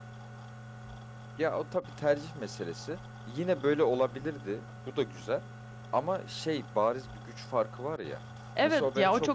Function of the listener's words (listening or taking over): taking over